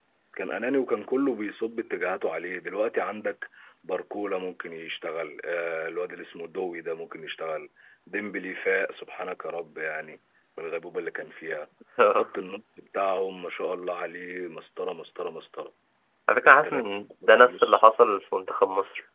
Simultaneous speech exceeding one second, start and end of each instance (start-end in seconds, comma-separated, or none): 16.4-17.8